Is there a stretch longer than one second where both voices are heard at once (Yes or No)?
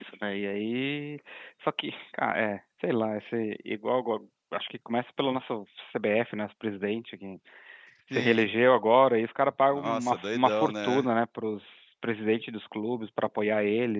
Yes